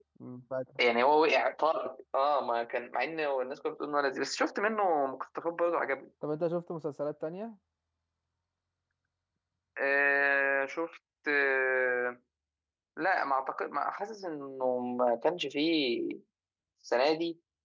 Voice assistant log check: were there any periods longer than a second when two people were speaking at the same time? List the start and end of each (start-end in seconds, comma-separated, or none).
none